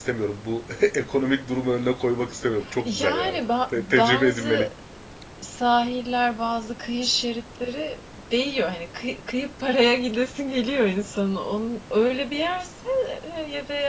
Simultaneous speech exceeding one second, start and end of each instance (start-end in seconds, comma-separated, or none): 2.8-4.7